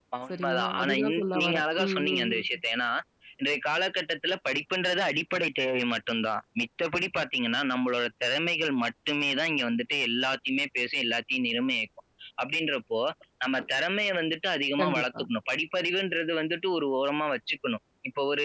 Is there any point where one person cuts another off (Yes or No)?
Yes